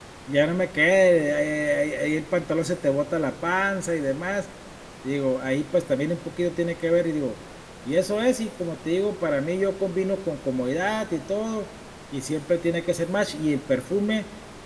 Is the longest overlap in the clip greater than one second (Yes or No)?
No